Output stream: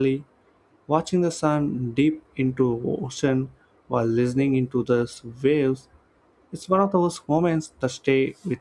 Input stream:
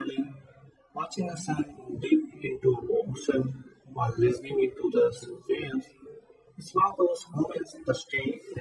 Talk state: echo only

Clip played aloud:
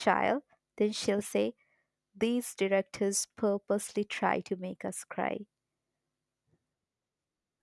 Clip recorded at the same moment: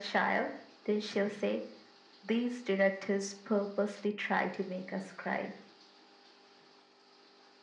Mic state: echo only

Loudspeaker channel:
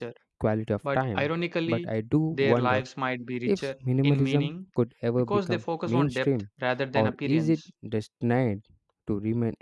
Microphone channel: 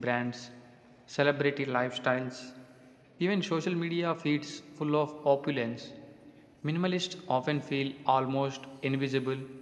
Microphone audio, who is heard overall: user only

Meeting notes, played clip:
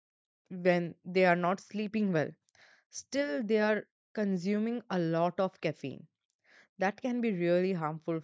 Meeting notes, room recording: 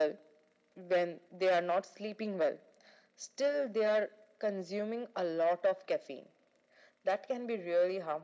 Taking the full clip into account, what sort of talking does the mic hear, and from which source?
echo only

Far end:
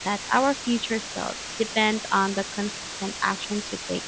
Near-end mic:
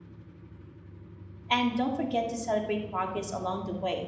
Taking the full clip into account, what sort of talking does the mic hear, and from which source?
user only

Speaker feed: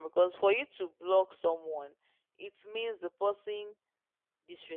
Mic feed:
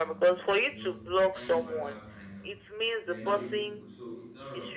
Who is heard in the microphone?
both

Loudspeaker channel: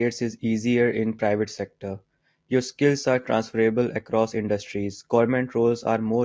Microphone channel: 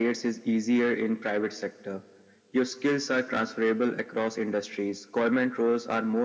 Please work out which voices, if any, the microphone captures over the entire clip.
echo only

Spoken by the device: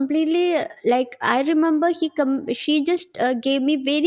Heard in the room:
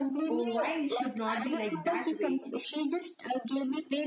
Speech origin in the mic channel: both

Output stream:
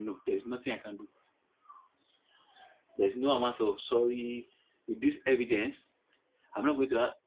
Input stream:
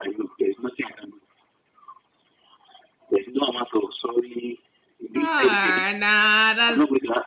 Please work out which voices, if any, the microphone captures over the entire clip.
both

